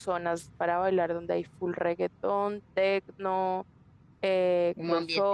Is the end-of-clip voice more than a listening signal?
No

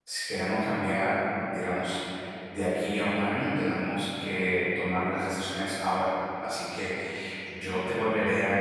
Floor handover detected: No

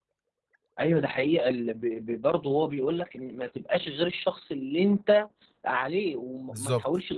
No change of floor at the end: Yes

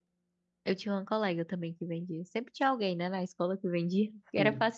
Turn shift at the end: No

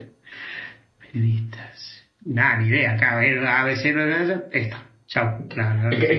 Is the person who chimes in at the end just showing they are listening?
No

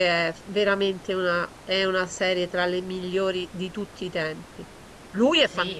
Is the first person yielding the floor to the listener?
Yes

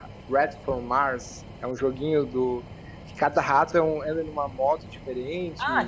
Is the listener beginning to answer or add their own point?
Yes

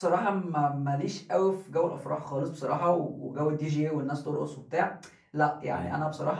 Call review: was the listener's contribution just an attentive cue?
Yes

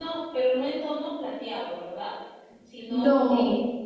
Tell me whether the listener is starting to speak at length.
No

